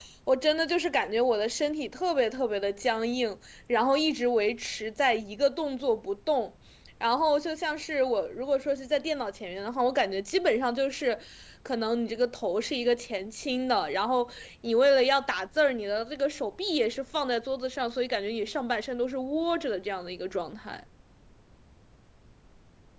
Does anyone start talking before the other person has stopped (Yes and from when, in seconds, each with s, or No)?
No